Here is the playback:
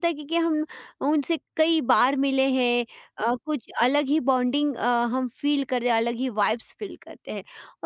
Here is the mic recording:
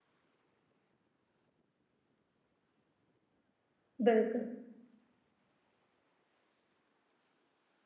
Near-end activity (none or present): present